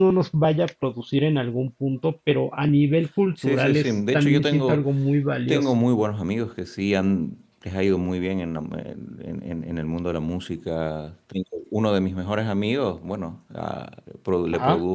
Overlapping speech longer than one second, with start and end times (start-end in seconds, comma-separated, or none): 3.4-4.8